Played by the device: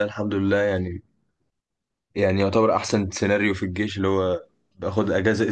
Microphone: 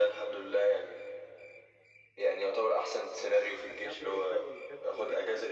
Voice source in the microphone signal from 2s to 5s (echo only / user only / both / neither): both